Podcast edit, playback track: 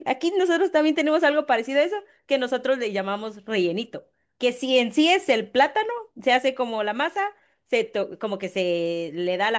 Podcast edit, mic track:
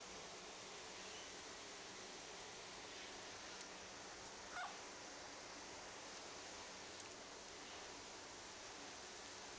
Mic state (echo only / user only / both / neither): neither